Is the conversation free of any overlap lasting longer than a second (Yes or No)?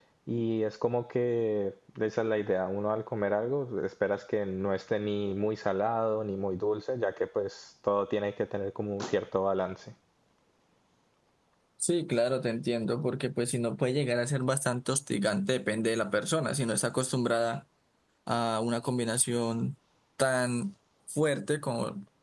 Yes